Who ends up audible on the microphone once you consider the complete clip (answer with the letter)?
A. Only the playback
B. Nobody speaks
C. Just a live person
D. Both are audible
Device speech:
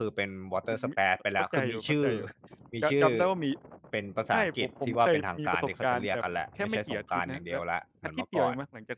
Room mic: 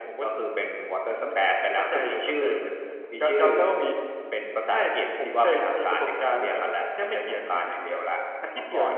A